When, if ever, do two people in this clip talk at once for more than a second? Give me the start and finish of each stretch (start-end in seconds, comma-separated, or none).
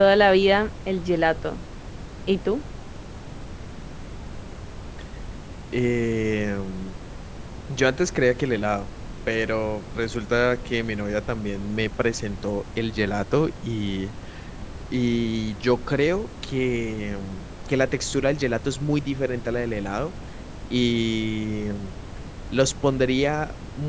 none